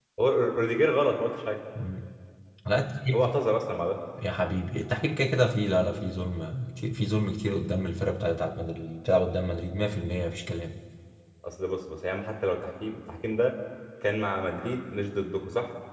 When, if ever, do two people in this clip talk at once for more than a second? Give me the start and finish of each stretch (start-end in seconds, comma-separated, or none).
none